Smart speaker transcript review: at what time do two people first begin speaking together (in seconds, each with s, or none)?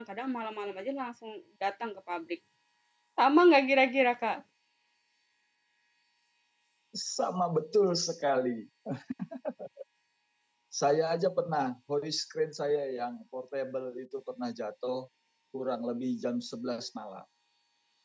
none